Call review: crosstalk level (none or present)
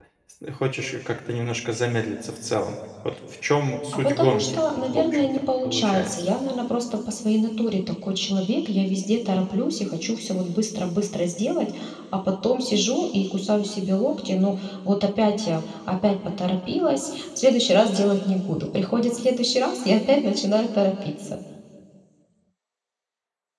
present